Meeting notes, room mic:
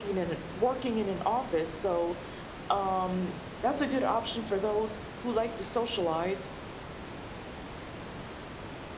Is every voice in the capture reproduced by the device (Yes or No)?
Yes